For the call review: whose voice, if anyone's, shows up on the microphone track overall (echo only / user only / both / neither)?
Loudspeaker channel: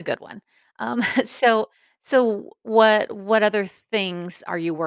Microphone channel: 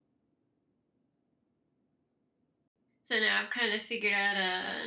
user only